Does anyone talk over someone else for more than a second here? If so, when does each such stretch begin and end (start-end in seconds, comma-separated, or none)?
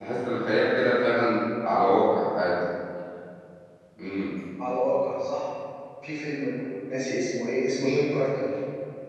none